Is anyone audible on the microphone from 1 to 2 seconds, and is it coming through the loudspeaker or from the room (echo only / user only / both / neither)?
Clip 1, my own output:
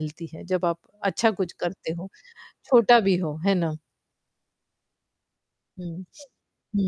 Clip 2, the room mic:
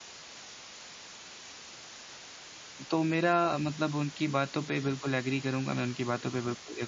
neither